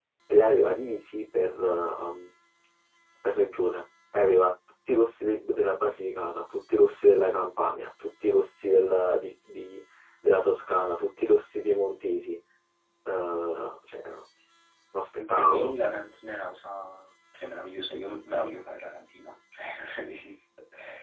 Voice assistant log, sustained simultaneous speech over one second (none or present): none